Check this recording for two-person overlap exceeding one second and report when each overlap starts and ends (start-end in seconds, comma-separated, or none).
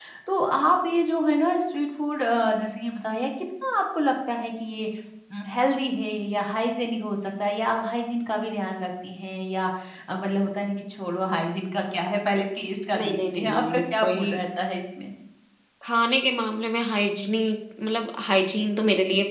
13.0-14.4